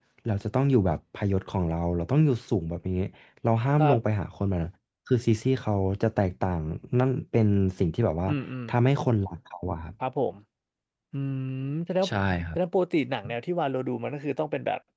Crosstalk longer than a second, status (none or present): none